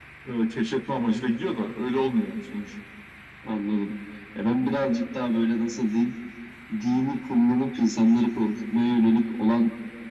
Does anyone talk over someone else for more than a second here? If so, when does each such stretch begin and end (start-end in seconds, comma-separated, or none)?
none